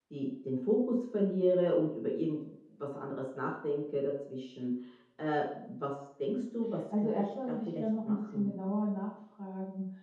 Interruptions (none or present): present